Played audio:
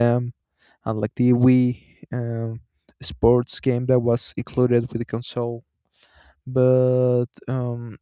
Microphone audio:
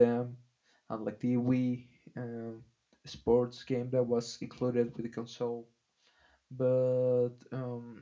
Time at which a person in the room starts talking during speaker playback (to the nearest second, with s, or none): none